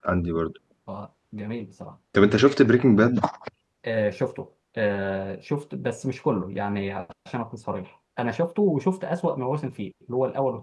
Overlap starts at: none

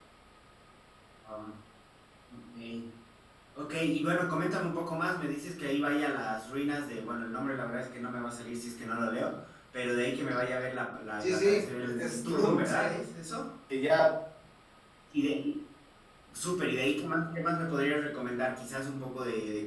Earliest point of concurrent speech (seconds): 11 s

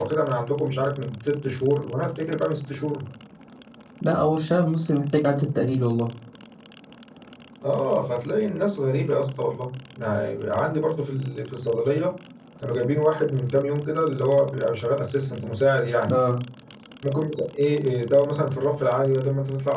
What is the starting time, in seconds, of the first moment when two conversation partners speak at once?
none

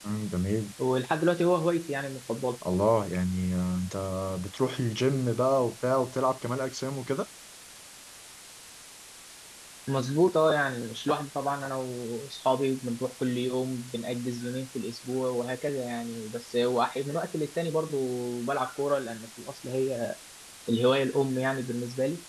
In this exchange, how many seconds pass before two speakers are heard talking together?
none

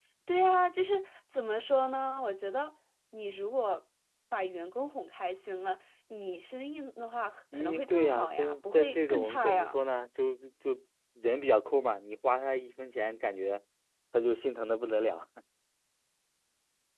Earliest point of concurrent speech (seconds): 8 s

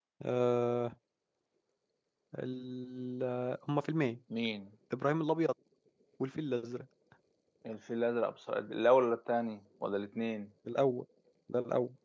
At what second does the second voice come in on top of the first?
none

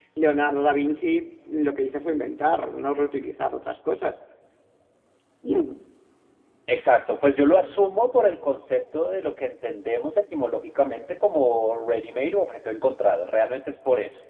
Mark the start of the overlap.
none

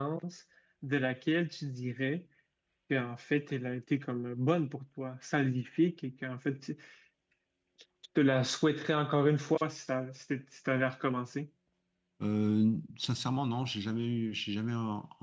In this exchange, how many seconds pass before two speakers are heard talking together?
none

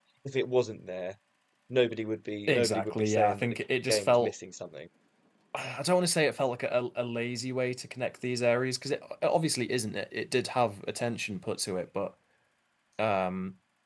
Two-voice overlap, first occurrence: 2 s

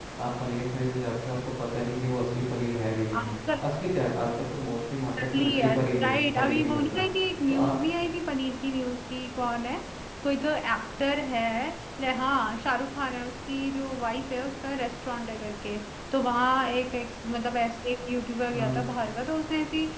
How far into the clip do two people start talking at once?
5 s

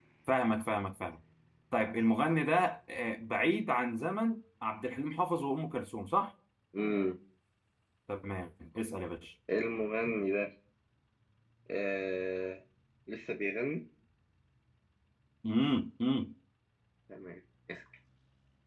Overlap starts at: none

